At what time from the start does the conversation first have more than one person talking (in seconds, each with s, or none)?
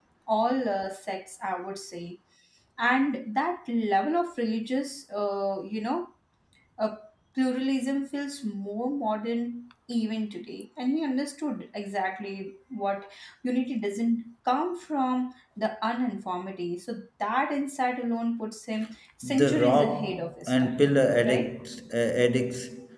19.2 s